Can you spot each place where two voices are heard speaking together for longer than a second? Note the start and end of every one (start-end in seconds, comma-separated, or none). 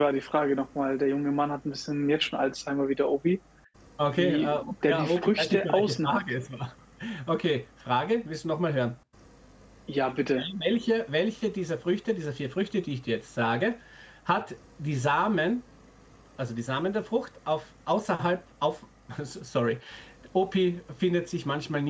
4.2-6.2